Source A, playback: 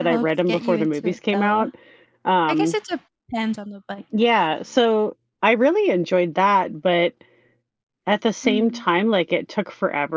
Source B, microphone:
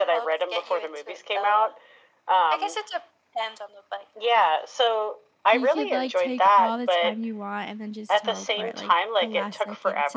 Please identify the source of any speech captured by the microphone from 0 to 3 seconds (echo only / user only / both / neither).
echo only